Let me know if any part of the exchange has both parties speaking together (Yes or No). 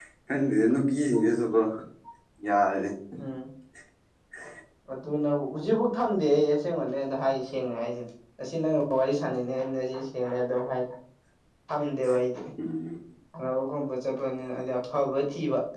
No